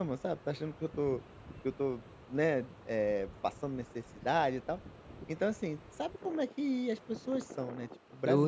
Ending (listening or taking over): taking over